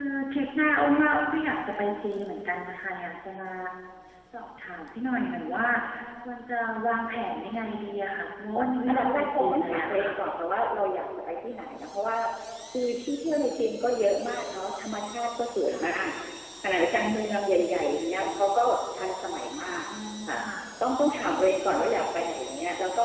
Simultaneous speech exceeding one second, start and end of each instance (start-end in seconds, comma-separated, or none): 8.9-10.1